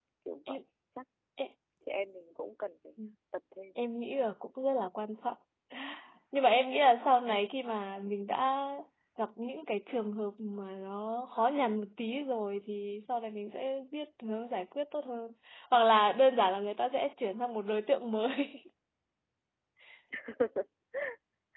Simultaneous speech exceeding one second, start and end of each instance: none

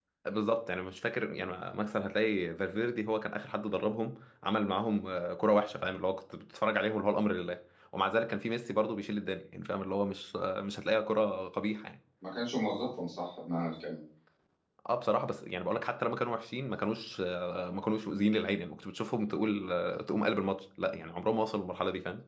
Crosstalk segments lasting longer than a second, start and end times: none

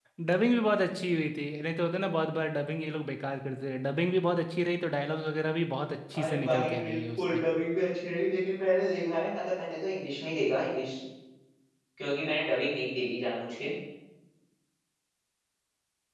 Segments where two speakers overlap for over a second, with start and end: 6.2-7.4

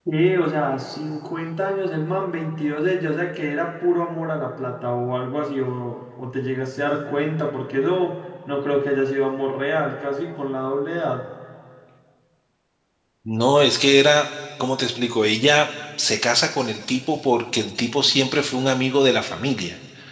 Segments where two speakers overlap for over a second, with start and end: none

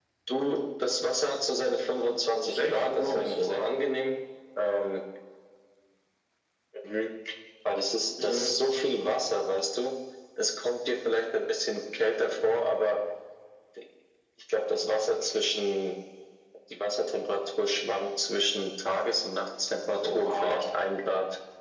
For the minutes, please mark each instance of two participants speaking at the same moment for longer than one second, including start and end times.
2.4-3.7

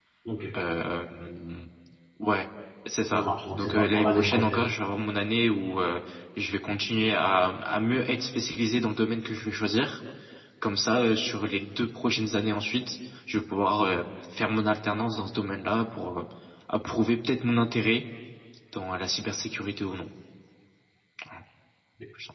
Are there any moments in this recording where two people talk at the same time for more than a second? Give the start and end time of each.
3.1-4.7

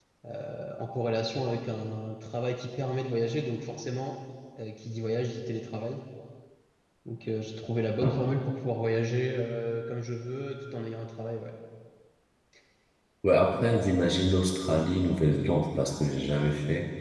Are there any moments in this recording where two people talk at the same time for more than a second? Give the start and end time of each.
none

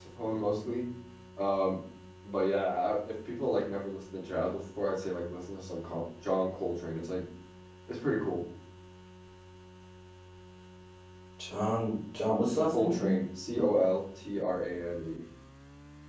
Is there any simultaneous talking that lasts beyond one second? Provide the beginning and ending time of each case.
none

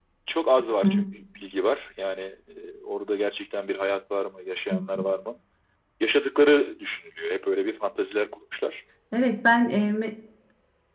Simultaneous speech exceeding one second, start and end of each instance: none

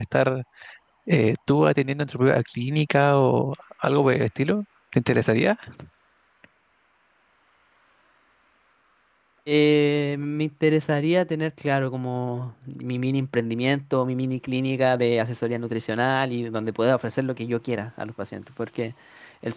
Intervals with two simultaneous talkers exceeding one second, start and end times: none

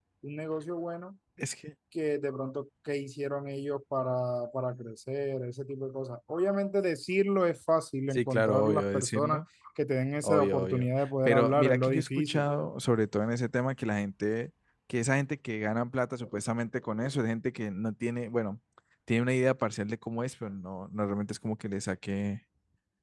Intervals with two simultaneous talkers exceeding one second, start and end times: 8.1-9.4, 10.2-12.5

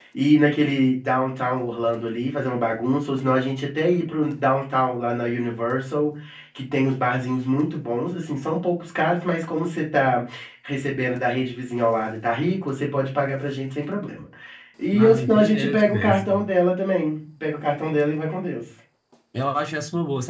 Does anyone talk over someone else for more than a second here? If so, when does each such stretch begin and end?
14.9-16.3

